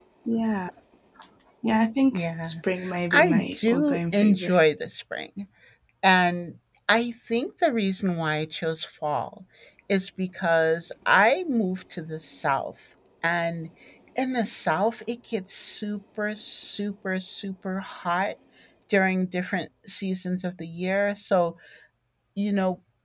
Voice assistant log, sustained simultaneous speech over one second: present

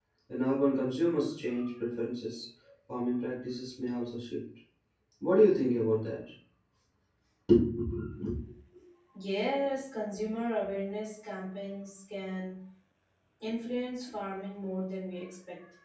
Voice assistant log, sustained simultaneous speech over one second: none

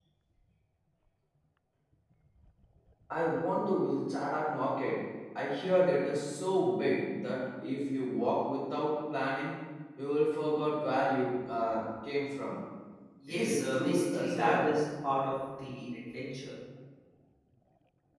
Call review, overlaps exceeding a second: present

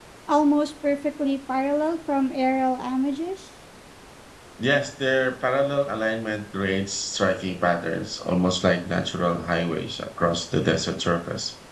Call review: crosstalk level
none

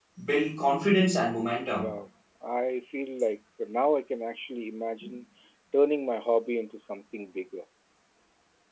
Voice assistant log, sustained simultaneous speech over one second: none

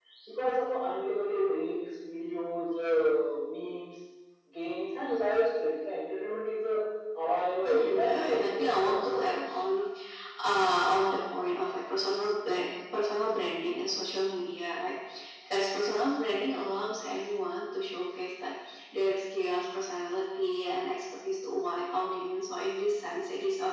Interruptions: present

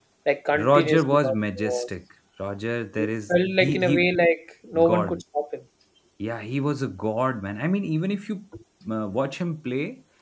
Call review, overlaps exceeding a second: present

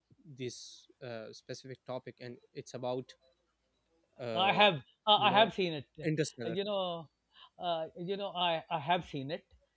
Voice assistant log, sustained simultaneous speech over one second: none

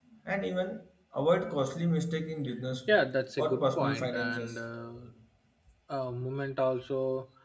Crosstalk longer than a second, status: present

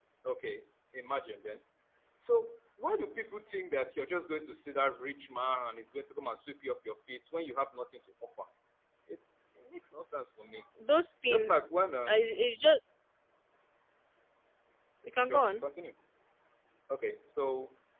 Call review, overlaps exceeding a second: none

